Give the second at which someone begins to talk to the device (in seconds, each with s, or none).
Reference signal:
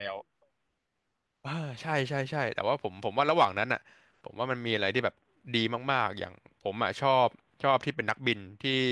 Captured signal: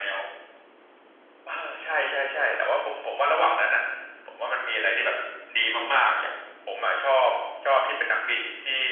none